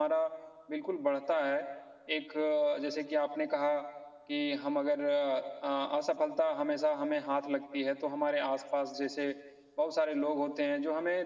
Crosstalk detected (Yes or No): No